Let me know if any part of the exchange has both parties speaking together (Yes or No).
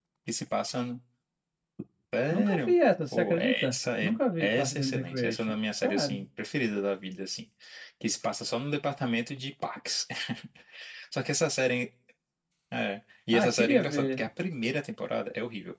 Yes